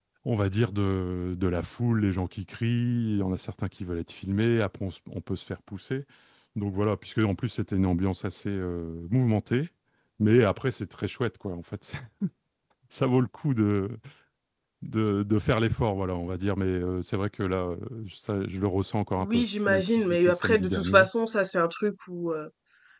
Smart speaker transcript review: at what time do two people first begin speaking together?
19.2 s

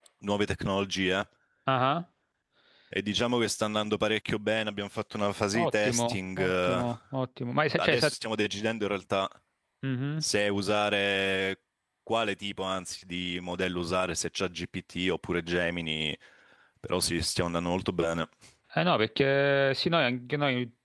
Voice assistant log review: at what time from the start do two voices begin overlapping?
5.6 s

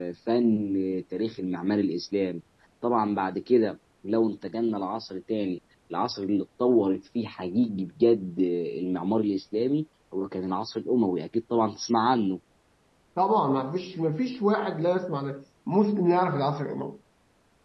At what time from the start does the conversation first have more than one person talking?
none

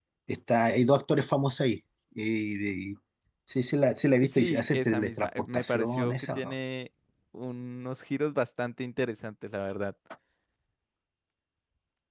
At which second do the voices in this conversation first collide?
4.2 s

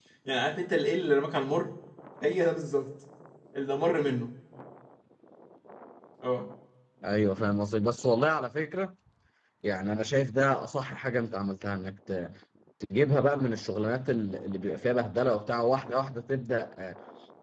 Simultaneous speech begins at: none

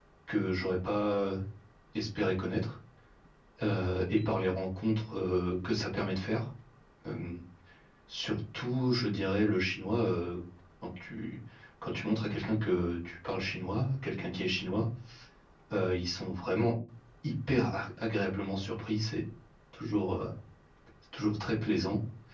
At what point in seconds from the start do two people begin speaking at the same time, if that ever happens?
none

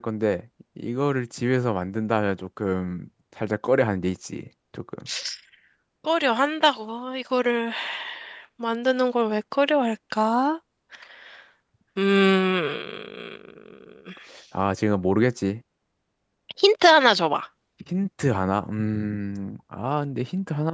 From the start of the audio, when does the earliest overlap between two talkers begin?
none

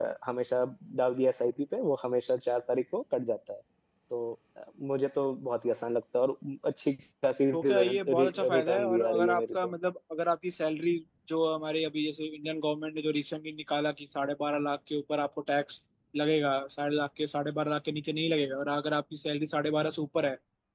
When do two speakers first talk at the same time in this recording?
7.5 s

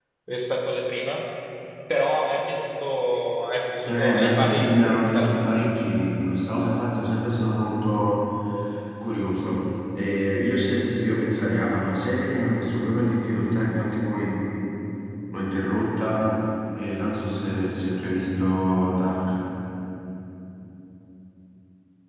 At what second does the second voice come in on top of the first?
3.9 s

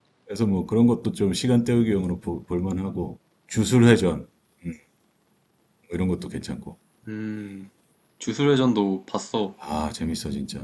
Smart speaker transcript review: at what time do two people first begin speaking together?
none

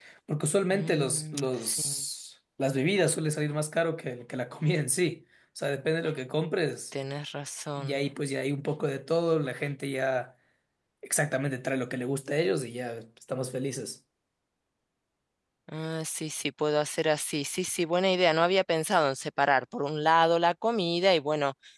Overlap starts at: 0.7 s

